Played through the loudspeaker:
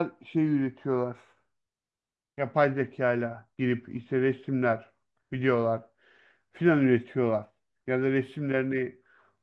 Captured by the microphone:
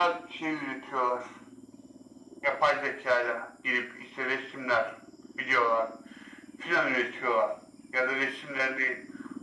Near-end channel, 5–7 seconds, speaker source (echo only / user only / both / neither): echo only